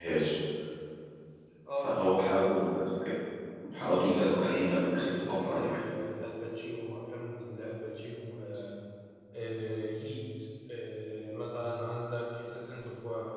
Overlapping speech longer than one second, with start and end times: 4.3-5.8

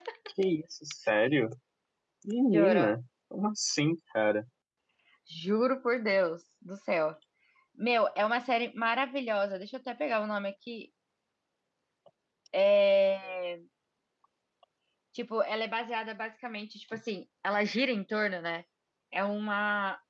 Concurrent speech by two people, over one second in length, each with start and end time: none

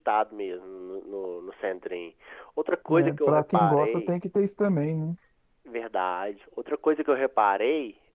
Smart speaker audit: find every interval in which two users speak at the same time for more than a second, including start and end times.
2.9-4.1

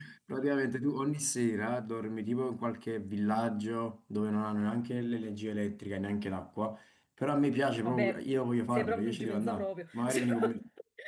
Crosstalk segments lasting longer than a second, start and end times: 8.7-10.6

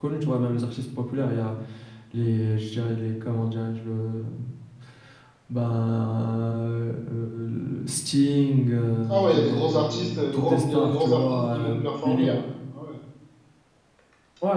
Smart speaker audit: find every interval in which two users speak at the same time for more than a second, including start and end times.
9.1-12.3

